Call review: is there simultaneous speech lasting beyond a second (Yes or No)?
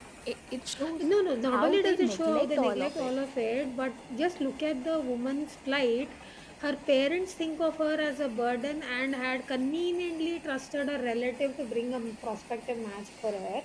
Yes